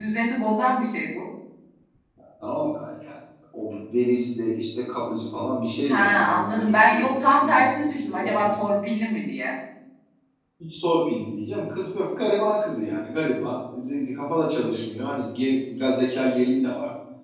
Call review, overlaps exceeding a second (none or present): present